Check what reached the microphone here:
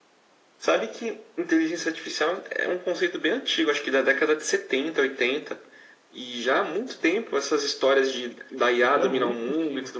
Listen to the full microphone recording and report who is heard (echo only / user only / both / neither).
both